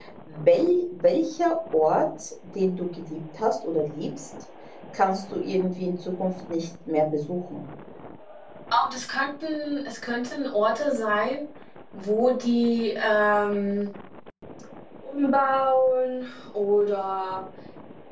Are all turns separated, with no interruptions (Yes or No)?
Yes